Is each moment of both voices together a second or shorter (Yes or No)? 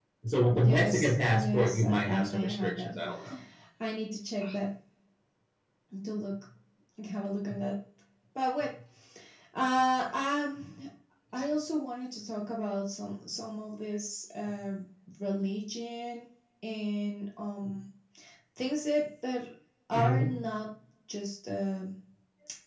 No